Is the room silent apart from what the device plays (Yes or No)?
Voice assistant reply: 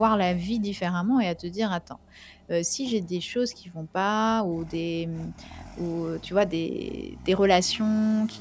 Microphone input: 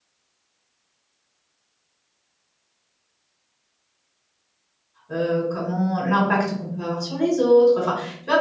No